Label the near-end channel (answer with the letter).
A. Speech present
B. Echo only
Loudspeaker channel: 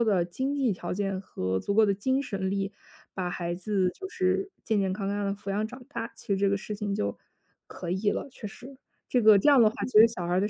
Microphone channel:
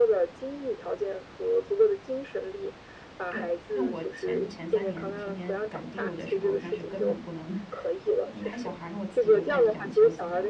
A